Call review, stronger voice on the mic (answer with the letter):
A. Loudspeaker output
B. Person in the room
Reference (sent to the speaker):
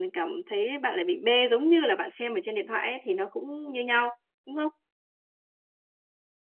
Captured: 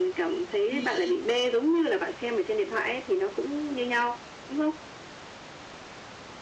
A